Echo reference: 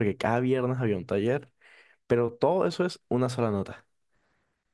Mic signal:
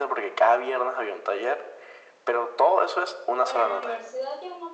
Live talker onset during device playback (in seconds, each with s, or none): 3.4 s